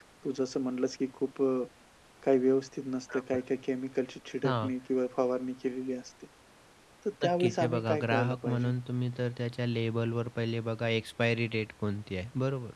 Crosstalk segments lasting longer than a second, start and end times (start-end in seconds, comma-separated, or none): 7.2-8.7